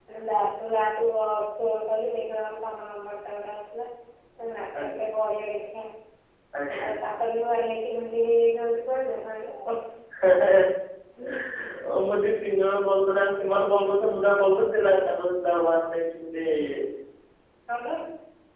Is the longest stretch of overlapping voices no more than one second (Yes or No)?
Yes